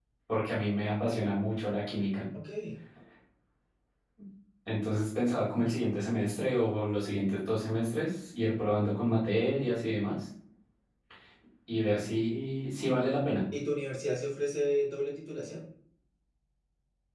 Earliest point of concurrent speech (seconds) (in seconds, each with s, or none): none